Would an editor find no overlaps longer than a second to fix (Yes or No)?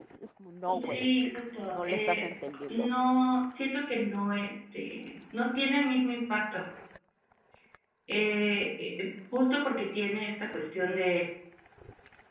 Yes